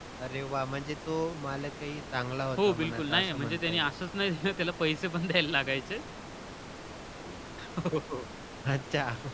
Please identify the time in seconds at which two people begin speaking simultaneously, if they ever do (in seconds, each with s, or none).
2.6 s